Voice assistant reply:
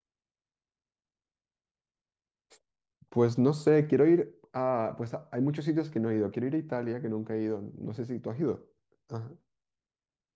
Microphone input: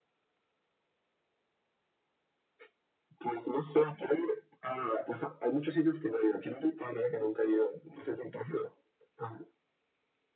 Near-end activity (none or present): none